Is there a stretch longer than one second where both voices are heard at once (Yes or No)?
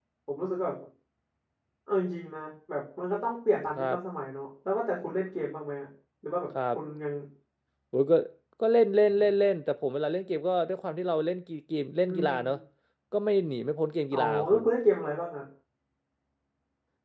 No